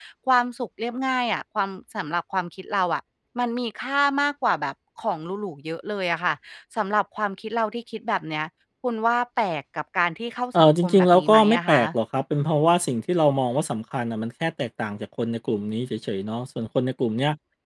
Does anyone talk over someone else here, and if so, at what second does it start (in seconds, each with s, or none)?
10.5 s